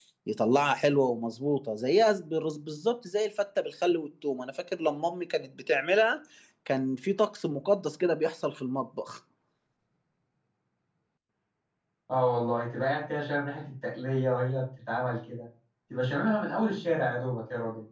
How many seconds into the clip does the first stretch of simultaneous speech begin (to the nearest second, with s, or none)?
none